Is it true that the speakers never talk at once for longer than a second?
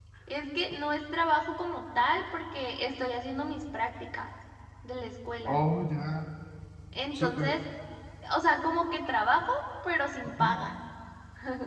Yes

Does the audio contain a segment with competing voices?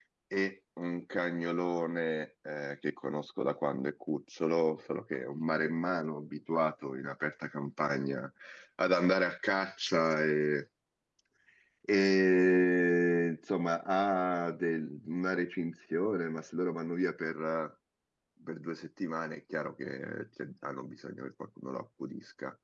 No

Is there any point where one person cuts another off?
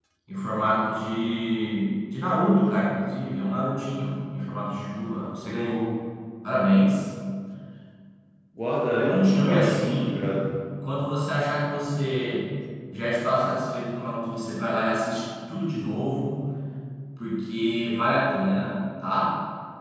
Yes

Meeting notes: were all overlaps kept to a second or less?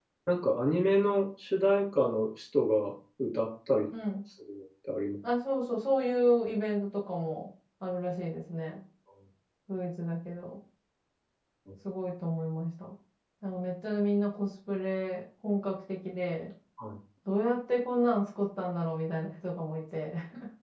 Yes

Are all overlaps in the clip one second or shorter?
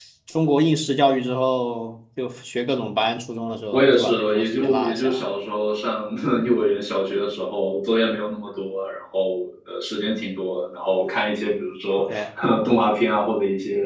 No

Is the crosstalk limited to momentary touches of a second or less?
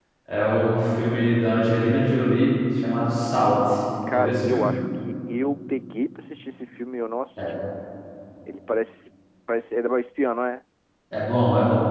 Yes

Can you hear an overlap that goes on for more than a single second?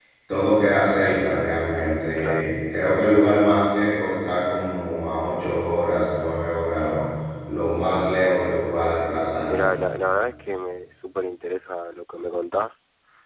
No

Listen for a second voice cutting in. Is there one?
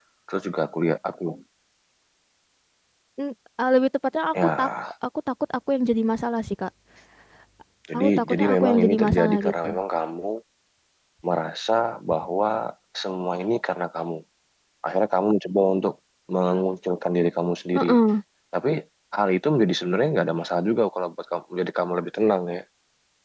Yes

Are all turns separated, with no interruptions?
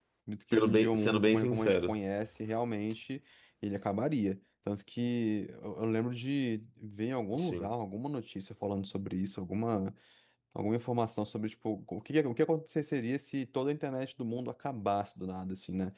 No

